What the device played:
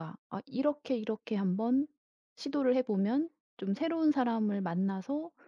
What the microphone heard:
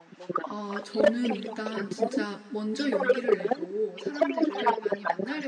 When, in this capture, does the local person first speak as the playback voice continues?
0 s

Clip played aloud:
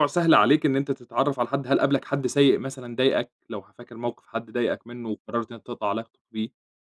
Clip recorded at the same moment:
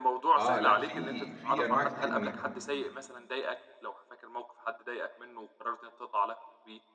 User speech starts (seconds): 0 s

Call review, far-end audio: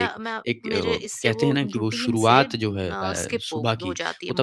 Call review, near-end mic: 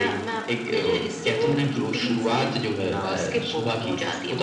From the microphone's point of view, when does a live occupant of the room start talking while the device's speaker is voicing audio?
none

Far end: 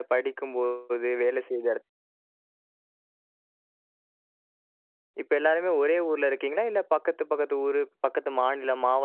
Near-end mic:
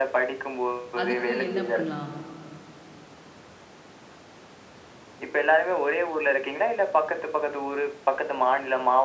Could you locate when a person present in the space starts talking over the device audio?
1 s

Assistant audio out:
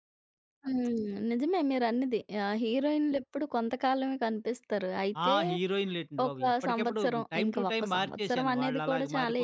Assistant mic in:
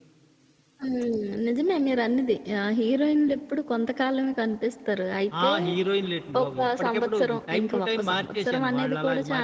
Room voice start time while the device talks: none

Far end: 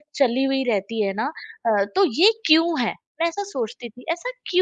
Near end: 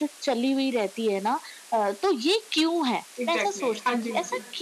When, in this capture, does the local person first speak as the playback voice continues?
3 s

